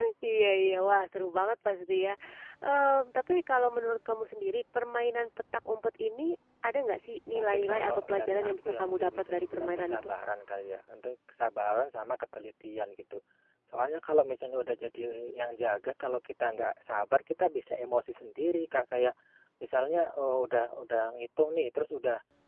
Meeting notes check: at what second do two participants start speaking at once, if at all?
7 s

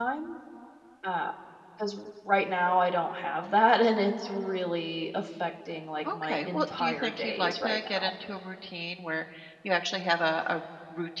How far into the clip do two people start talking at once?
6 s

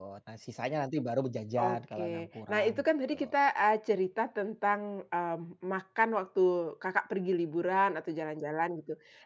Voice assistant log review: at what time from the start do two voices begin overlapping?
2 s

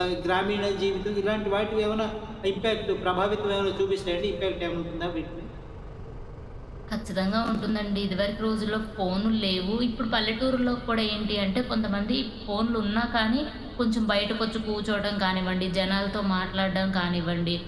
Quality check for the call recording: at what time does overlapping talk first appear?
none

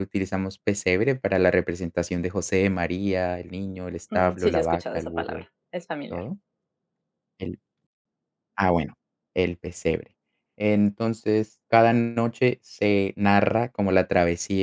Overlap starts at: 4 s

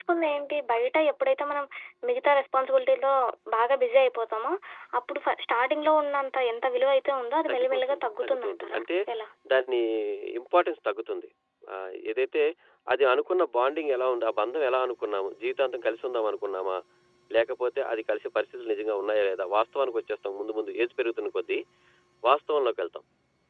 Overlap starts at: 7 s

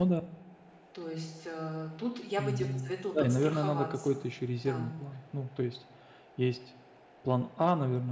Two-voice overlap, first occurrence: 2 s

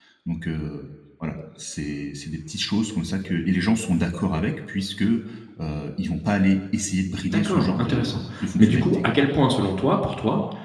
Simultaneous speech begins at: 7 s

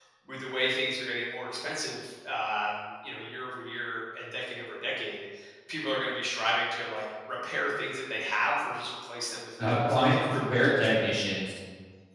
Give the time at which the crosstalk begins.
10 s

